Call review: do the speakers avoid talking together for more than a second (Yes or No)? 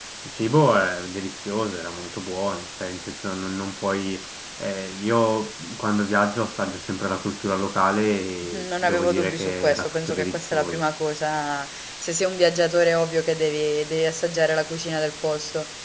No